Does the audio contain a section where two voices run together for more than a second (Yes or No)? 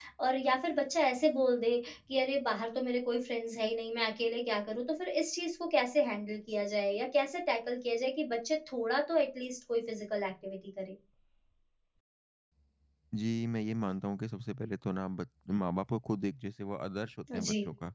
No